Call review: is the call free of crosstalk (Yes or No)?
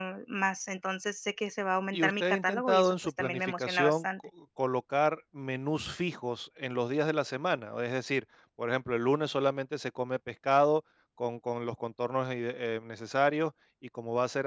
No